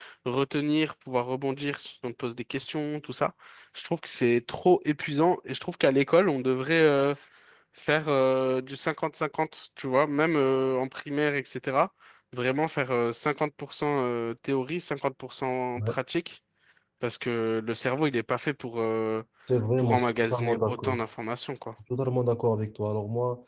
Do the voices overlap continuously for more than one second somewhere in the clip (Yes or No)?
Yes